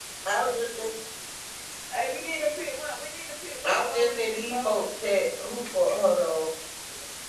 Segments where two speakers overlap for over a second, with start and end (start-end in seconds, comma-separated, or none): 3.6-4.9